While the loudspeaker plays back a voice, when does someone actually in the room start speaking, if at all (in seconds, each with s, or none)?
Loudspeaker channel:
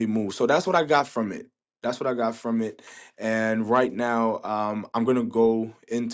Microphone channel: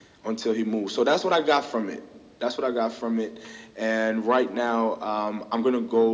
none